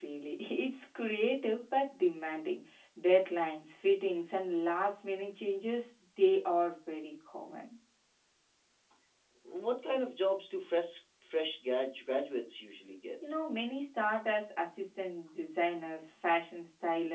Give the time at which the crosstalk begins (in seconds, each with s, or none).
none